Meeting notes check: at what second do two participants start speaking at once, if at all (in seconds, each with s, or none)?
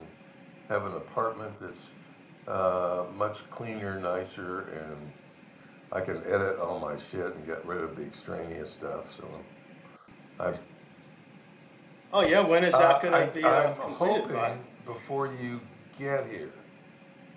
12.7 s